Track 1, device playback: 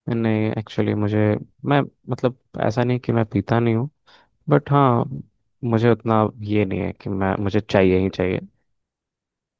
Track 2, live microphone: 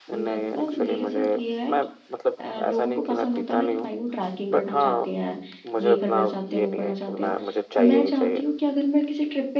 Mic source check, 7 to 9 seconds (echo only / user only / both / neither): both